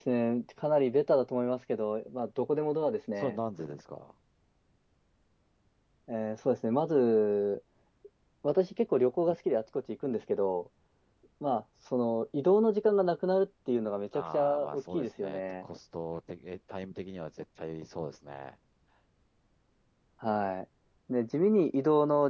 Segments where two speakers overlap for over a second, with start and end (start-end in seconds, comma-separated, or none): 14.1-15.6